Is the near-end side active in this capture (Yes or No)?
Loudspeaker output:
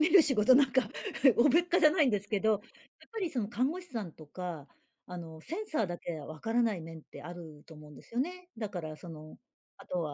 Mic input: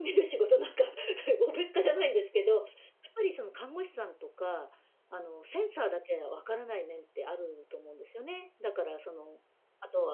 No